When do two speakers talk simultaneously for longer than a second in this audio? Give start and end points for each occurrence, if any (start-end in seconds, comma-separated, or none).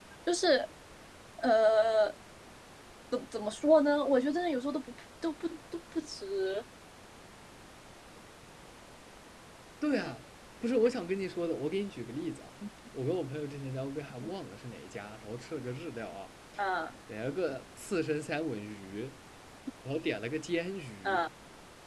none